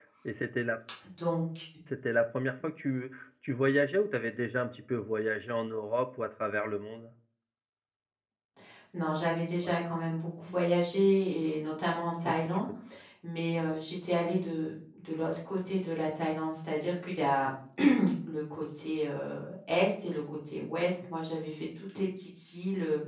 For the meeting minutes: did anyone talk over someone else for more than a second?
No

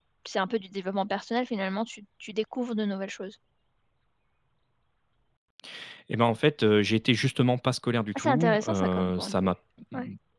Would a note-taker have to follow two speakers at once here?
Yes, from 8.2 s

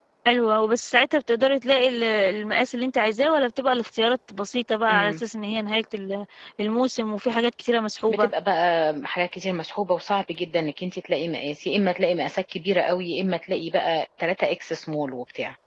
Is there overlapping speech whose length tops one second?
No

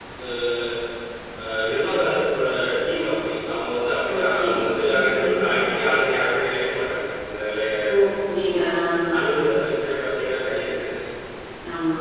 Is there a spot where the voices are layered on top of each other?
Yes, from 4.0 s

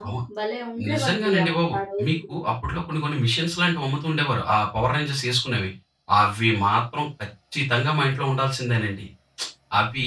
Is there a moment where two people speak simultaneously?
Yes, from 0.9 s

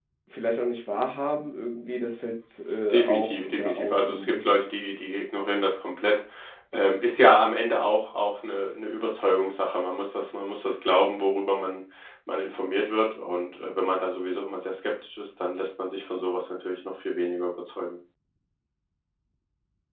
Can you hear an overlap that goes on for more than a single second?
Yes, from 2.9 s

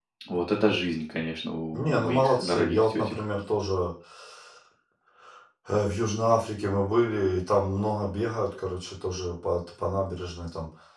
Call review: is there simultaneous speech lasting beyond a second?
Yes, from 1.7 s

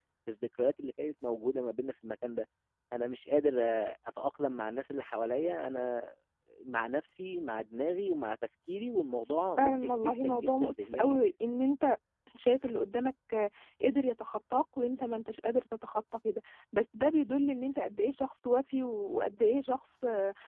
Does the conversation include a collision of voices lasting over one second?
Yes, from 9.6 s

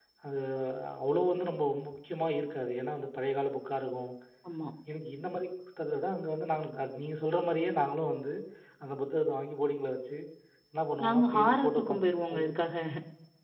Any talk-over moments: Yes, from 11.0 s

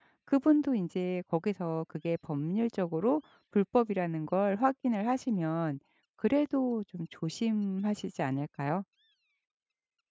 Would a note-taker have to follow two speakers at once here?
No

